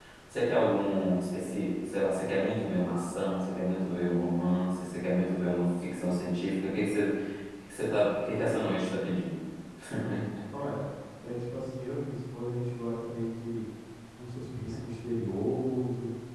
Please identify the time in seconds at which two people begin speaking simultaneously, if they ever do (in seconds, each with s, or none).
none